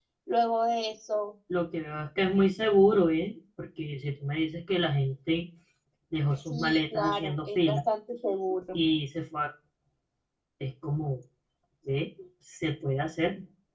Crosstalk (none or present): present